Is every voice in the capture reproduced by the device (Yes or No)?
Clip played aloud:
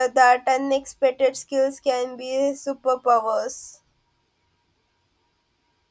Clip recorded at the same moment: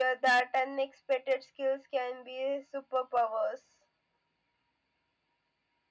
Yes